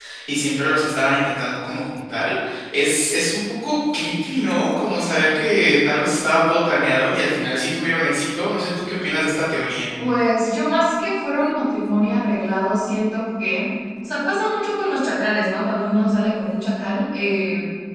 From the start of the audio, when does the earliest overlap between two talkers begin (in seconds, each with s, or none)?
none